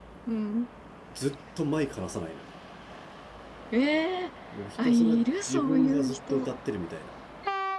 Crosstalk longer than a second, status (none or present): present